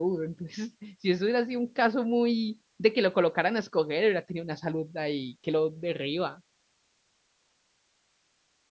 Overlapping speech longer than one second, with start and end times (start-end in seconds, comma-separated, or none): none